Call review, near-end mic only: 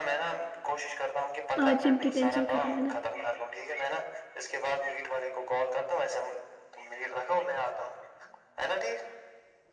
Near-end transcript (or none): آج جم کی ٹینشن ختم ہے نا